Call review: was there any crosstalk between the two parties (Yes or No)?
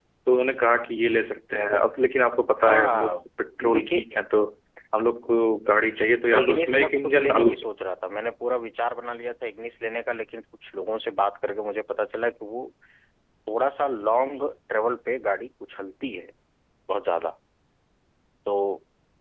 Yes